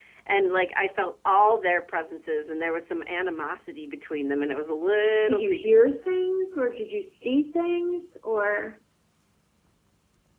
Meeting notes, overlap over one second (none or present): none